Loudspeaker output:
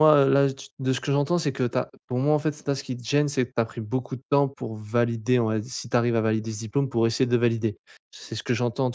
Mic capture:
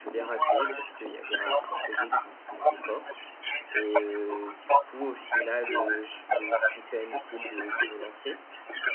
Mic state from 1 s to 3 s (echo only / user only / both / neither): both